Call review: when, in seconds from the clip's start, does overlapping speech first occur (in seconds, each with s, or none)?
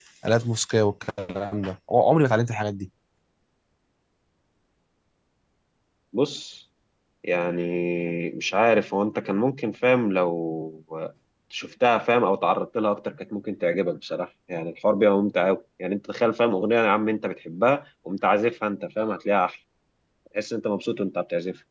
none